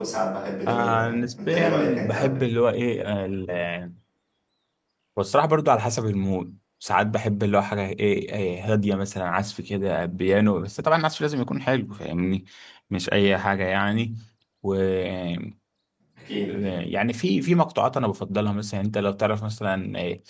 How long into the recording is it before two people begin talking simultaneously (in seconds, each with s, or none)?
0.7 s